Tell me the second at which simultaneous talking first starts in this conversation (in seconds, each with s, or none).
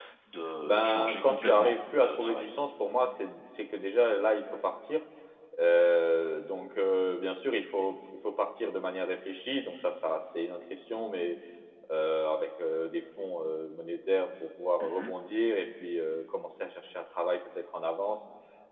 0.6 s